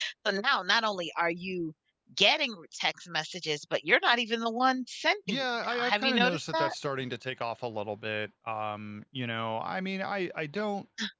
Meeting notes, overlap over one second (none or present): present